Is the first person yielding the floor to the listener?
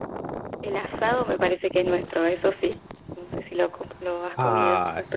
Yes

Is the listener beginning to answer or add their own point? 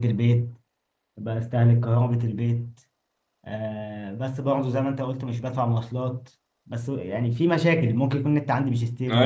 Yes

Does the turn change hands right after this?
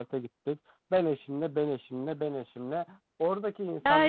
Yes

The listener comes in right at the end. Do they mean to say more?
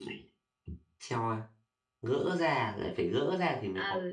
Yes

